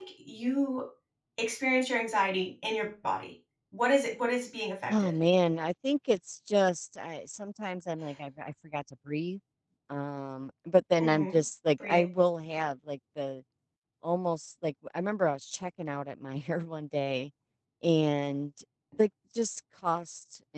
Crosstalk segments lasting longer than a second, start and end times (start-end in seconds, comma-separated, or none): none